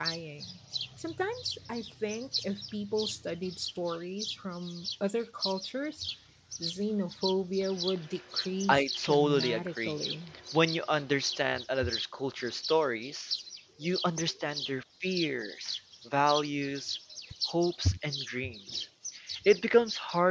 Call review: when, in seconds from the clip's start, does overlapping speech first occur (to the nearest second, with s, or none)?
9 s